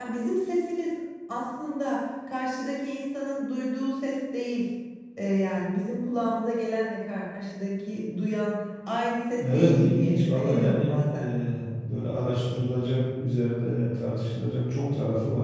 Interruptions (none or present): present